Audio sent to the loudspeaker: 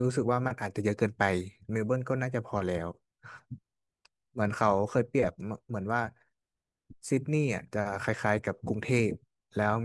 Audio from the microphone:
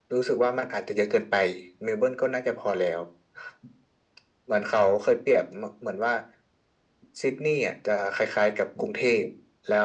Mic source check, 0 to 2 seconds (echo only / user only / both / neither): echo only